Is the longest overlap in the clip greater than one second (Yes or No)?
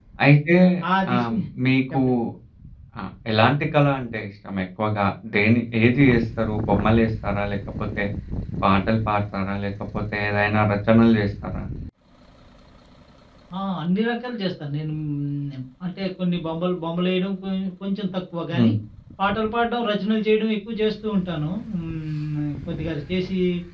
No